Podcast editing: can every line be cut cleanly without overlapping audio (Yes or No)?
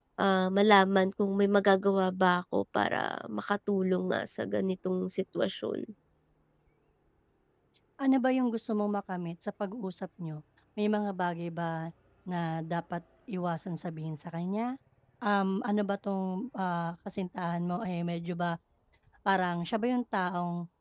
Yes